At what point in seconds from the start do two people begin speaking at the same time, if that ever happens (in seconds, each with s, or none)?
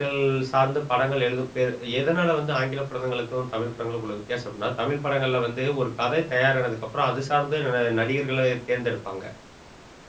none